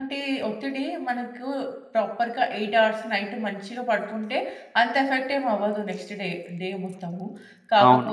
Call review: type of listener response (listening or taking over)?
taking over